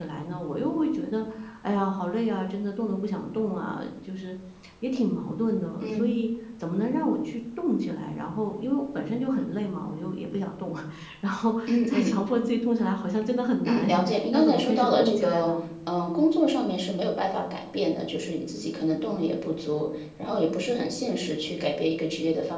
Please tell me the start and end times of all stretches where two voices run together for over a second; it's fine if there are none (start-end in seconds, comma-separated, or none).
13.7-15.5